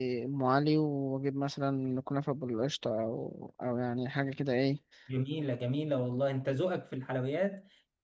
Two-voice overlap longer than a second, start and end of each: none

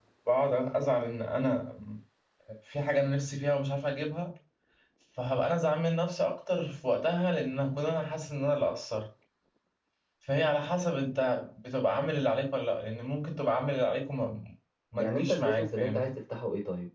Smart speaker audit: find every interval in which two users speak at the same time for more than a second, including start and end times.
14.9-16.1

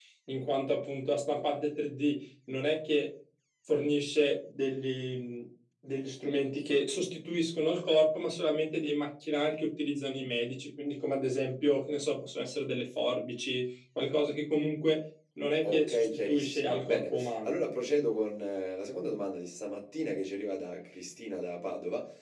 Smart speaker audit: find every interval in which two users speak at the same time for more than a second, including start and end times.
15.6-17.5

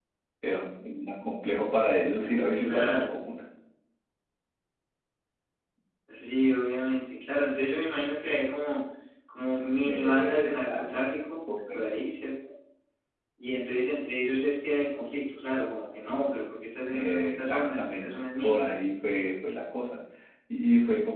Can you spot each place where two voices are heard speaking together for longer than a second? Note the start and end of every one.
9.8-11.1, 16.9-18.6

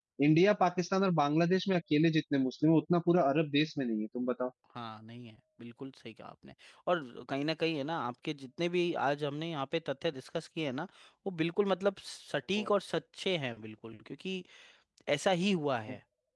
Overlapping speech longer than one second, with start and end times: none

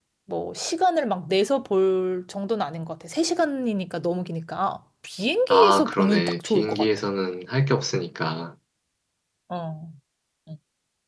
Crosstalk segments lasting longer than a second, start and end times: 5.5-6.9

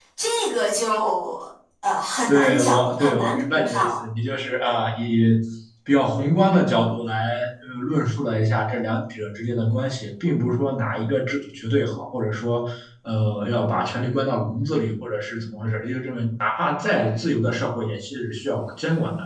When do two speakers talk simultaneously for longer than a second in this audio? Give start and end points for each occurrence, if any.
2.3-4.0

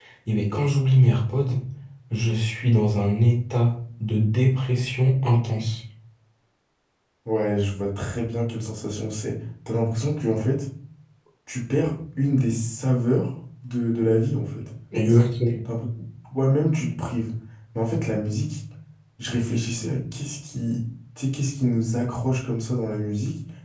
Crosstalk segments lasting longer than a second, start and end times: none

